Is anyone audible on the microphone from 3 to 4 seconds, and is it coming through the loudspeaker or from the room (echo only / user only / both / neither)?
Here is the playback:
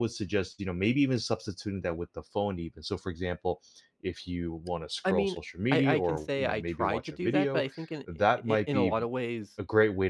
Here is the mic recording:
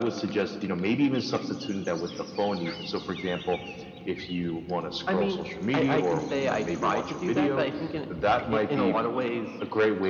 echo only